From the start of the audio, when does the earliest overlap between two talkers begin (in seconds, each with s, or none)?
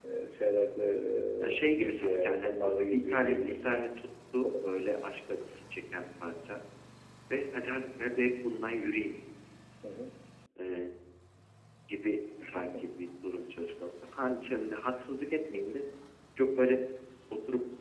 1.7 s